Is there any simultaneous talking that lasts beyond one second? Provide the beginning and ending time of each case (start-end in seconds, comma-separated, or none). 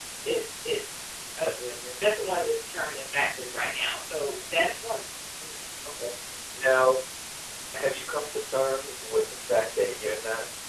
none